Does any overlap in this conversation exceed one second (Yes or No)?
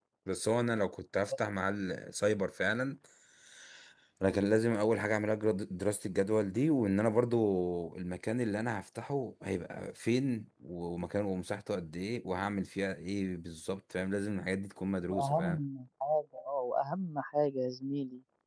No